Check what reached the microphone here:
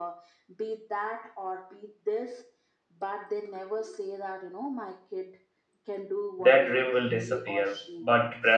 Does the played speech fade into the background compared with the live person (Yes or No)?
Yes